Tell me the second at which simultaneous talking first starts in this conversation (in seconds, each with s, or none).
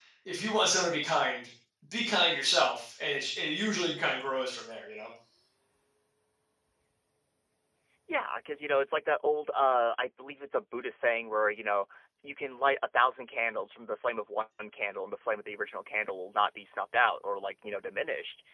none